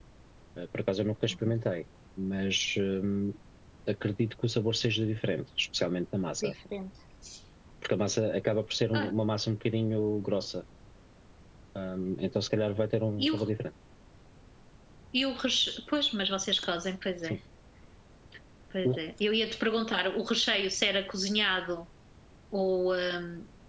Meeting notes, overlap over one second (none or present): none